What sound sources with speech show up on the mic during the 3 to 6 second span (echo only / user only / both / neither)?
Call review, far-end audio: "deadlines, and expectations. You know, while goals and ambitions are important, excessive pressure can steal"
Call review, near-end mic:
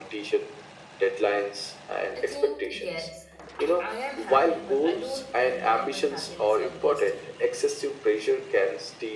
both